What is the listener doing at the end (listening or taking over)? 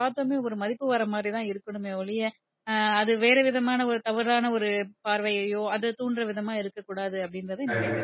taking over